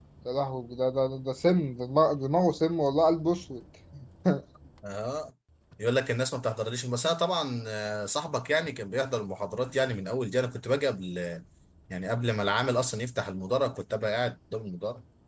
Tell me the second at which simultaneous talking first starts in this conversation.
none

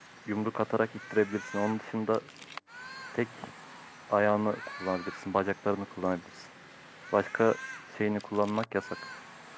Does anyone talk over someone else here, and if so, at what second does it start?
none

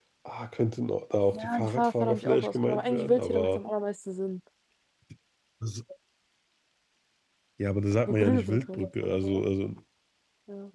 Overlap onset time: 1 s

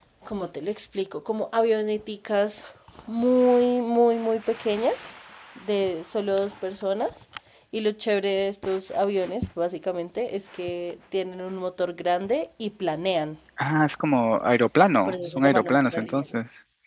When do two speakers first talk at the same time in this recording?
15 s

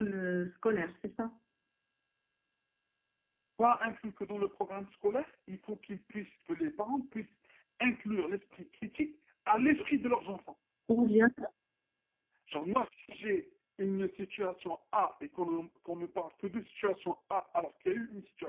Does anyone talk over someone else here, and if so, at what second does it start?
none

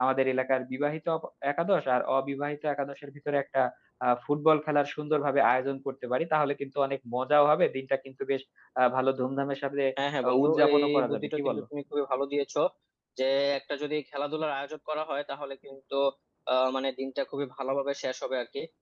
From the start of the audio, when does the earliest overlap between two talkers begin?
10 s

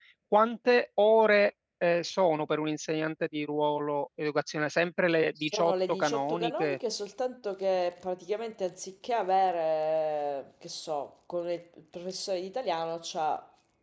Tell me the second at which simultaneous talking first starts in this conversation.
5 s

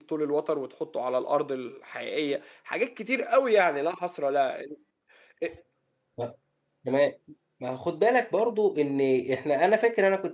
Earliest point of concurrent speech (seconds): none

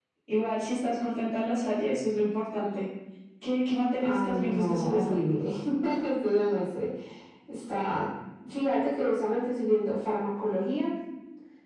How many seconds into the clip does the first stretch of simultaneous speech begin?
4 s

